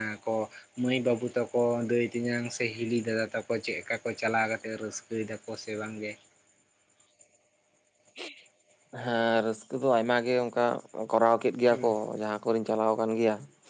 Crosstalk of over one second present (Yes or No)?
No